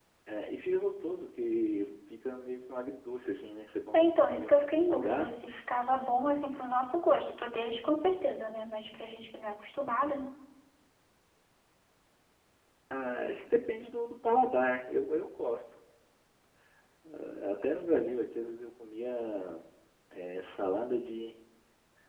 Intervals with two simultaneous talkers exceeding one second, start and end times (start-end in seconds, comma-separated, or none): 3.9-5.4